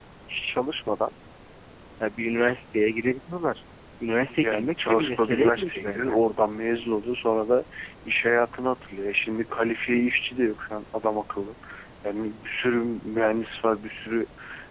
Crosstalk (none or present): present